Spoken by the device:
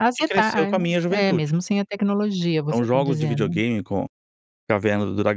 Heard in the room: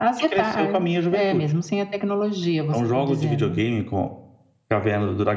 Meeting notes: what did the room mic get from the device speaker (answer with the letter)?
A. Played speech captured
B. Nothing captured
A